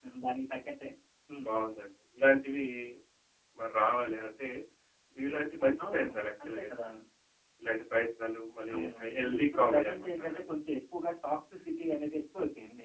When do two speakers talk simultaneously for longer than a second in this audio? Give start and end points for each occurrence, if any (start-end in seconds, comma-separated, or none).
8.8-10.4